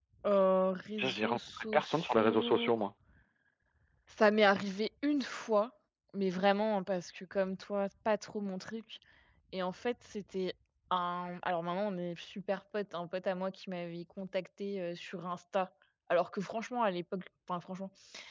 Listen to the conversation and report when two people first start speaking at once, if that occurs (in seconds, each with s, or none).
1.0 s